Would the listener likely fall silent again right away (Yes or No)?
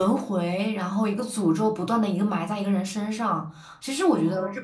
Yes